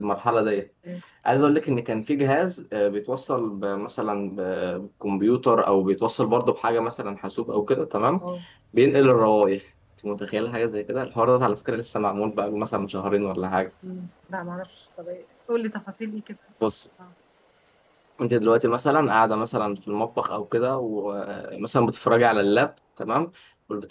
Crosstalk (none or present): none